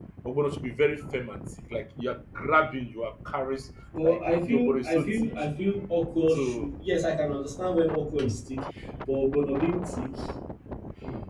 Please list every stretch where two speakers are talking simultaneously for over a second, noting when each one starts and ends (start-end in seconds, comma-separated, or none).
4.0-5.3